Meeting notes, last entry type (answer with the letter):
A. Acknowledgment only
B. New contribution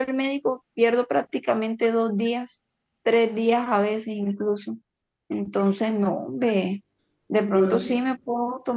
A